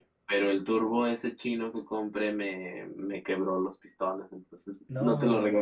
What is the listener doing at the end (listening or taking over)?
listening